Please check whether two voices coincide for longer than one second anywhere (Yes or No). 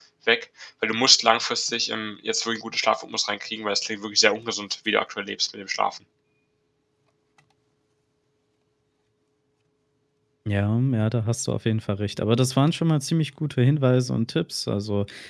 No